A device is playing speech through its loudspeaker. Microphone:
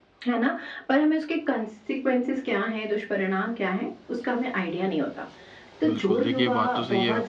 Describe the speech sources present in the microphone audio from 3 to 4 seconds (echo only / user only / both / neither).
echo only